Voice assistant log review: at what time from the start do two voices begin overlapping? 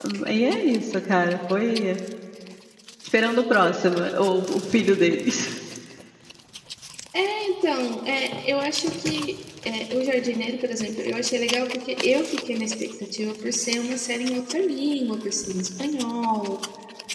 none

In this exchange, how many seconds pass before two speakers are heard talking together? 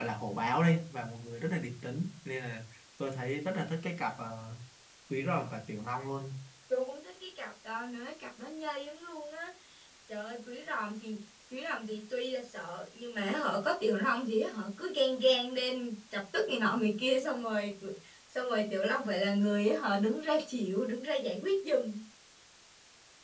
none

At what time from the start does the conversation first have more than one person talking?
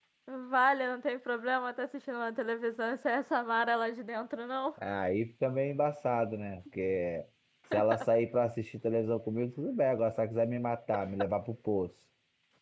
none

